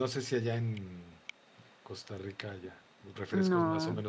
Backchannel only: Yes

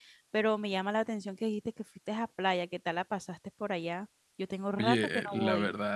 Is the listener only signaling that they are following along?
No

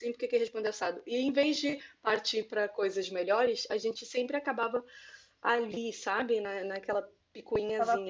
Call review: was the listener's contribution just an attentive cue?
No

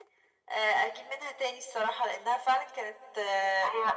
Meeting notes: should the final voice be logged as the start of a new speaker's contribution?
Yes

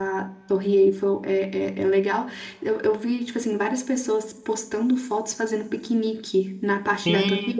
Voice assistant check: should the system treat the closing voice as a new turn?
Yes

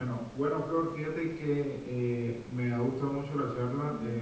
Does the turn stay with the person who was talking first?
Yes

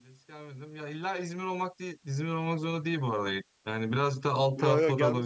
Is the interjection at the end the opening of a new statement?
Yes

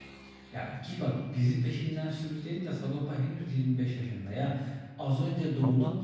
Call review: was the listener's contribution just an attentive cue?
Yes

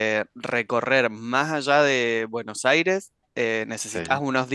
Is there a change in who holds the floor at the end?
No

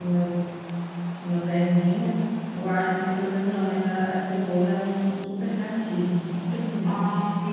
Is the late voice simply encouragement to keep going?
No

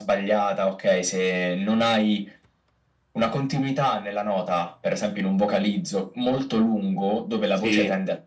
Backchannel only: Yes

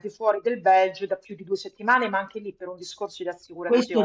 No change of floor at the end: No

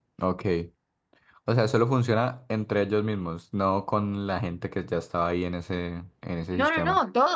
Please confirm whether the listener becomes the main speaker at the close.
Yes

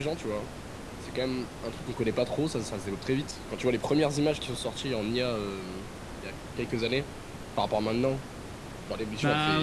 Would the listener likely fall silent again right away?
No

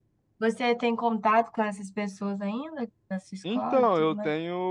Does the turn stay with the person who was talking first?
No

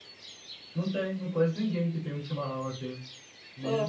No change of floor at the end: Yes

